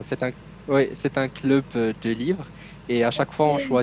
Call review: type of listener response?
listening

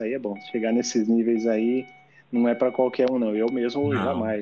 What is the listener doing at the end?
listening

